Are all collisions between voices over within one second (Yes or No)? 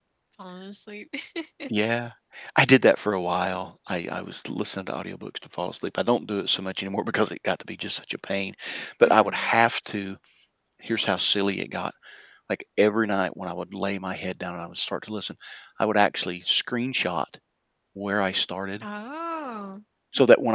Yes